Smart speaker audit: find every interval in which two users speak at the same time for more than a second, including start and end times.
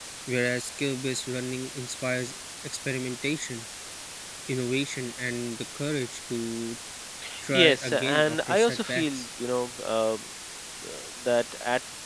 7.5-9.2

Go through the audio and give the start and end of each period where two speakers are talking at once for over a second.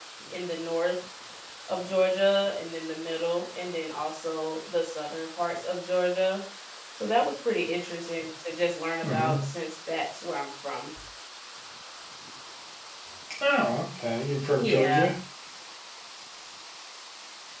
none

